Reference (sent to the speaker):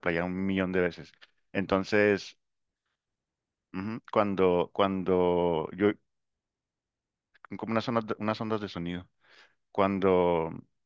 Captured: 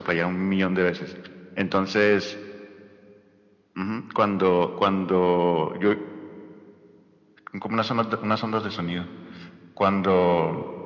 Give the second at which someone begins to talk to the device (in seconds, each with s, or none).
none